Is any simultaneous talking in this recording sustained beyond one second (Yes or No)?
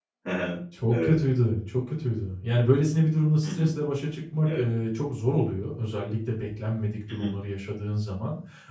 No